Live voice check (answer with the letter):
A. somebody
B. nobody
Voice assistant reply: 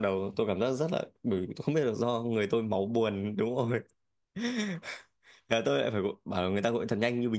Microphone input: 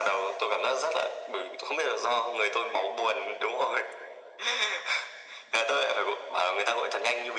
B